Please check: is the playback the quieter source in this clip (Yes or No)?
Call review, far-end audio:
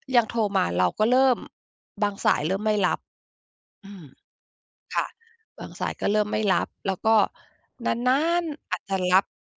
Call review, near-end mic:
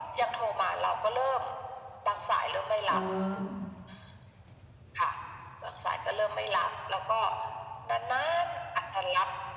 No